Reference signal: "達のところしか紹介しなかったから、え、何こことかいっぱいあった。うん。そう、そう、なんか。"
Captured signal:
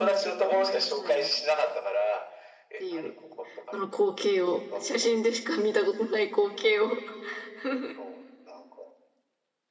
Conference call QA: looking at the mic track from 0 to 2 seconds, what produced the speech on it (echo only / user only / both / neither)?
both